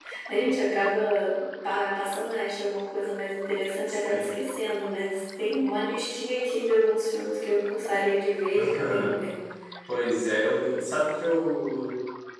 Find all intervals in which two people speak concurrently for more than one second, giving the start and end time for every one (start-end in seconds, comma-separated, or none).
none